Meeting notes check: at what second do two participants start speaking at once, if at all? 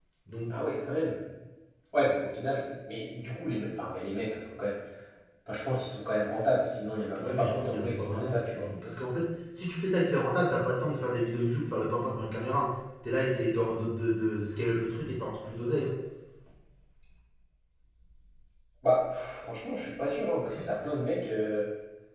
7.2 s

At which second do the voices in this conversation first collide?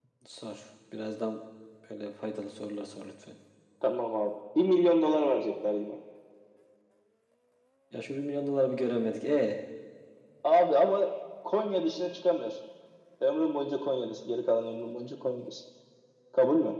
none

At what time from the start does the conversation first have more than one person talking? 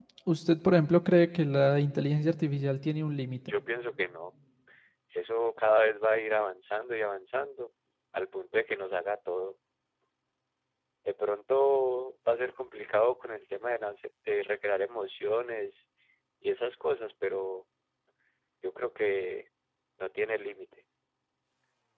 none

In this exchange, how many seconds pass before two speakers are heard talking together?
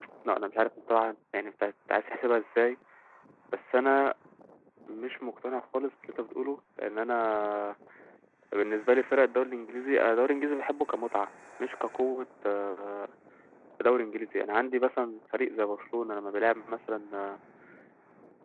none

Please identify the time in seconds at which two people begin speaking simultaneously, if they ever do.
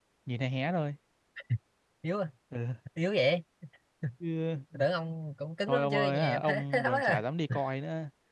5.7 s

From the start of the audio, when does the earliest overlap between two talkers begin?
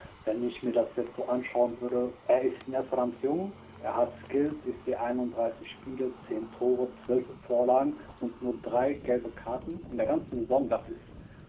none

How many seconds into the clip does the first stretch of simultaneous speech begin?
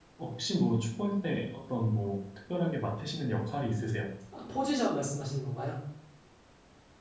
none

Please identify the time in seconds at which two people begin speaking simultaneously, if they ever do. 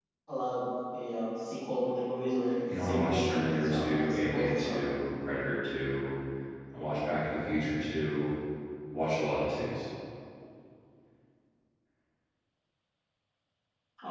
2.4 s

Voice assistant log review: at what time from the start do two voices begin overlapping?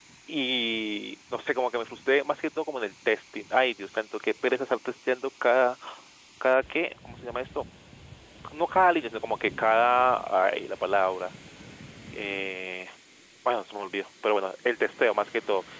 none

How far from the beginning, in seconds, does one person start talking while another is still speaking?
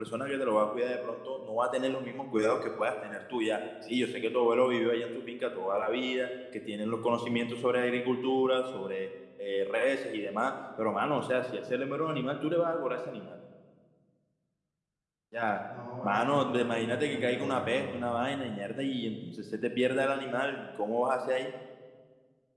16.0 s

